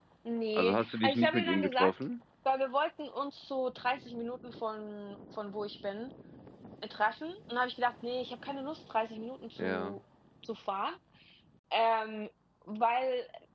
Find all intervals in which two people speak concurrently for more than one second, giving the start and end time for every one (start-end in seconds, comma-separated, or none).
0.6-1.9